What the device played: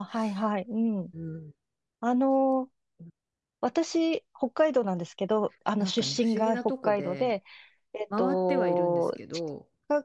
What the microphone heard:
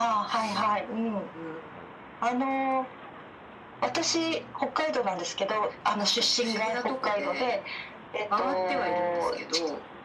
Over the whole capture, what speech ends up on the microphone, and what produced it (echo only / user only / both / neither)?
echo only